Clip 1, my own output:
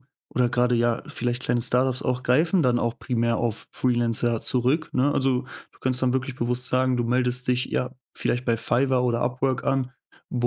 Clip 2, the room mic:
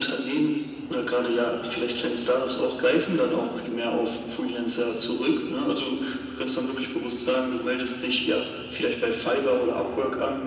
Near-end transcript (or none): none